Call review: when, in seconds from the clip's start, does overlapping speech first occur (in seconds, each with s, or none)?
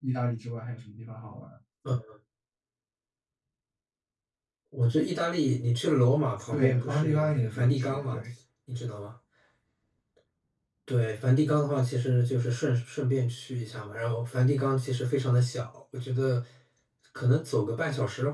6.4 s